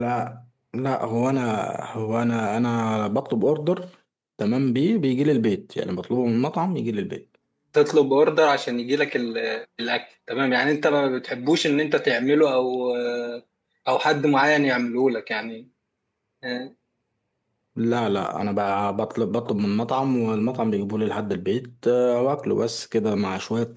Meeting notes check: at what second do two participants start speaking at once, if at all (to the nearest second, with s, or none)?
none